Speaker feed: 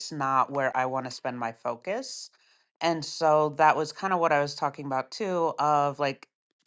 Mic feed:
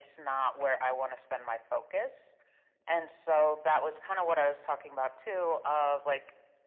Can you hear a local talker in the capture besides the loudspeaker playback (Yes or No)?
No